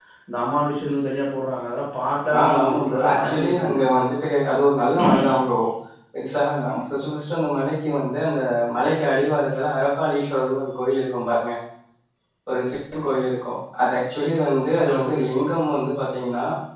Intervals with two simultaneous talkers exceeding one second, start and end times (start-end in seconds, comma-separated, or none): 2.4-3.8